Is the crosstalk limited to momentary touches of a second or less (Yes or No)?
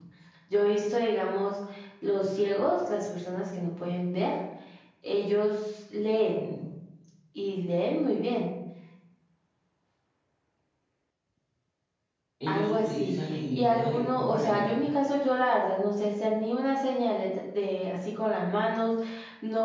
No